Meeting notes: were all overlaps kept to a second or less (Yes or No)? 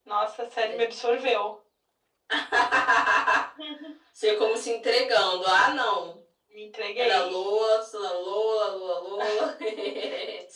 Yes